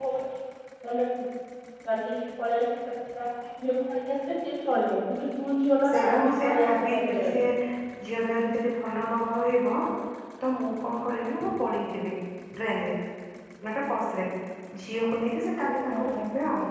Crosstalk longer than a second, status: present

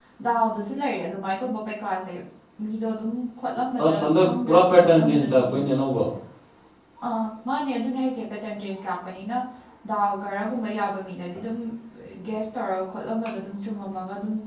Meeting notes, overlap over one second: present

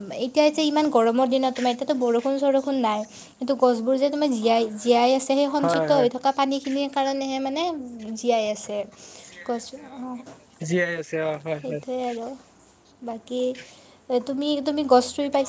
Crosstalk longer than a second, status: none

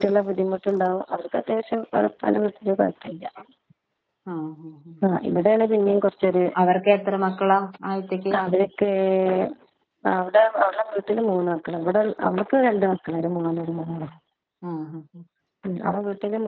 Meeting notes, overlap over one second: none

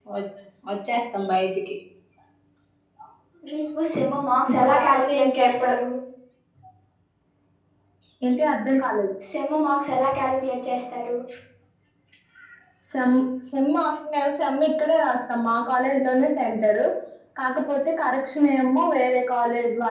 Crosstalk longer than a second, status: present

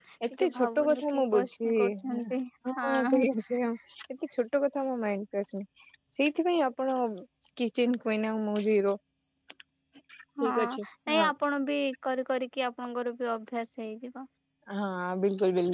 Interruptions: present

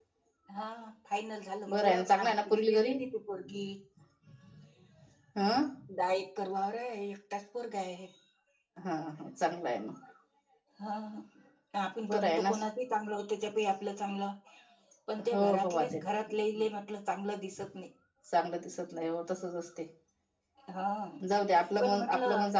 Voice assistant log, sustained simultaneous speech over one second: present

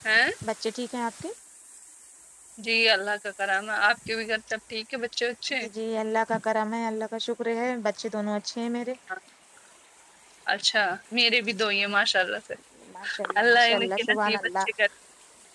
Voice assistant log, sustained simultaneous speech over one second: present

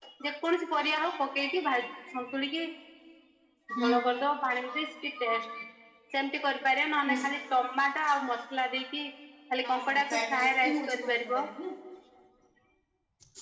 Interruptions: present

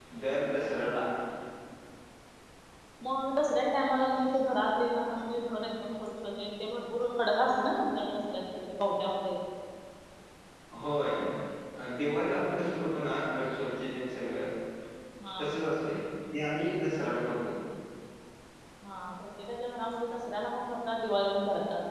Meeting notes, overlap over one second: none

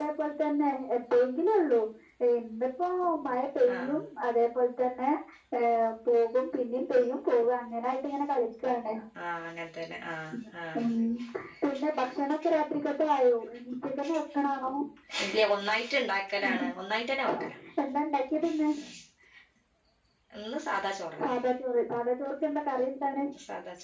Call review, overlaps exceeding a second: none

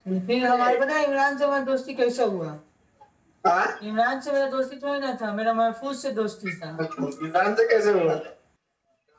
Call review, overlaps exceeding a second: none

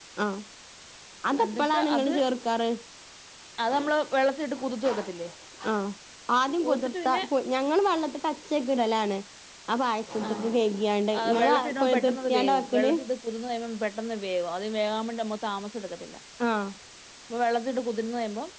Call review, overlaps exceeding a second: present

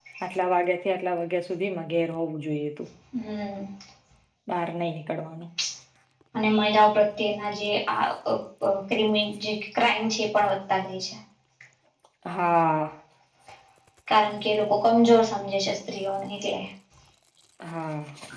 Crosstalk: none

